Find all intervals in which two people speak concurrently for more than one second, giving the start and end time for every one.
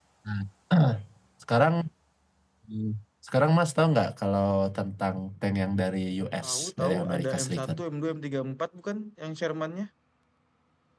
6.4-7.7

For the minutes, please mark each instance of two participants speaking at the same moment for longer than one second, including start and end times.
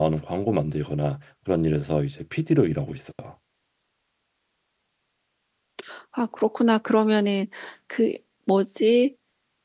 none

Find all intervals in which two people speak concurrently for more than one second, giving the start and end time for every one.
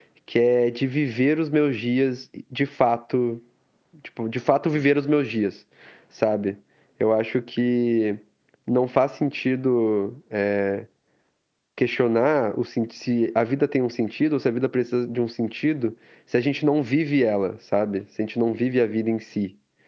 none

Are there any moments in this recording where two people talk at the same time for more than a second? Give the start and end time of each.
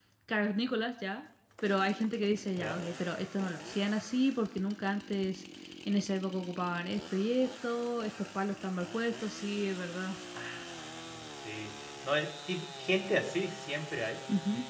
none

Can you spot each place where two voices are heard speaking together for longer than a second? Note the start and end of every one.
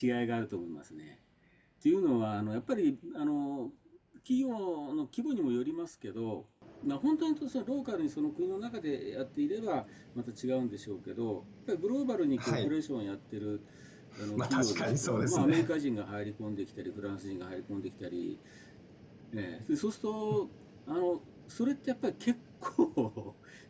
14.4-15.7

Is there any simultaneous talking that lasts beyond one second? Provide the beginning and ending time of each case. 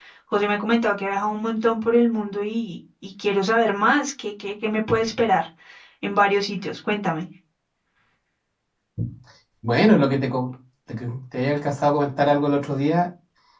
none

